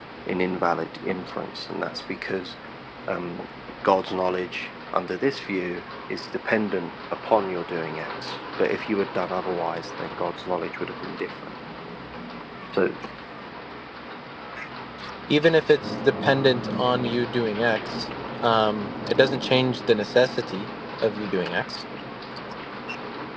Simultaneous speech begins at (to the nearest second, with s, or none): none